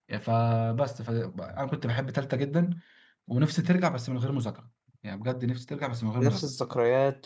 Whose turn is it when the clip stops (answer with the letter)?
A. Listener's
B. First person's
A